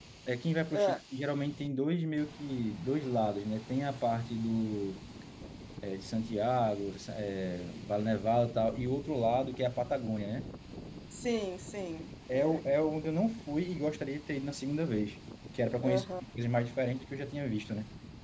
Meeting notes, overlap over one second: none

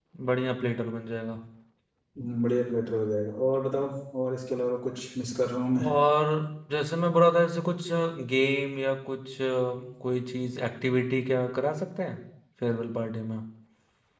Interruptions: none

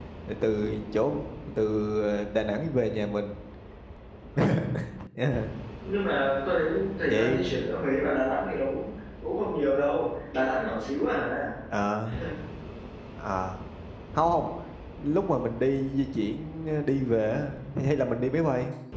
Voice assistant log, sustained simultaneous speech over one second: none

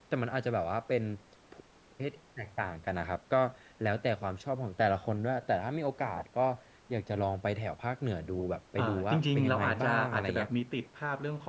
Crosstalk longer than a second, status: present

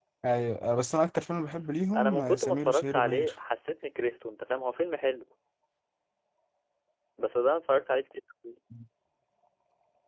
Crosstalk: present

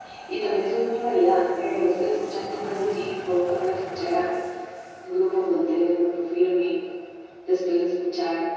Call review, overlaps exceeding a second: present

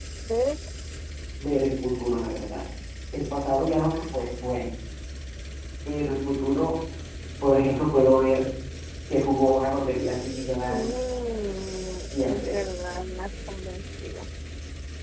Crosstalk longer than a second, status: none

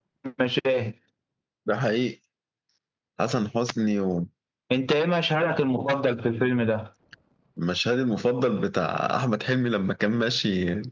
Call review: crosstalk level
none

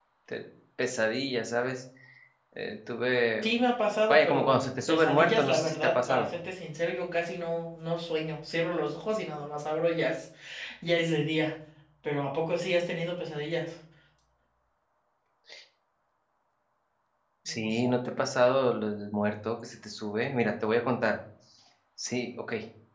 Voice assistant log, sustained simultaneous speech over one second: present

